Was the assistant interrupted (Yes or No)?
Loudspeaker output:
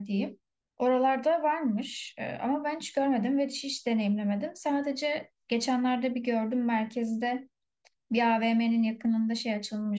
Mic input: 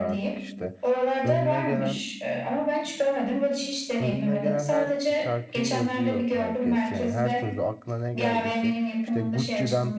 Yes